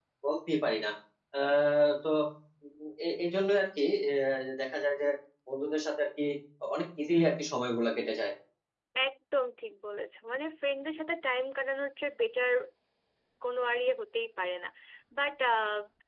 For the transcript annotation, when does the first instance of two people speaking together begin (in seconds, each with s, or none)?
none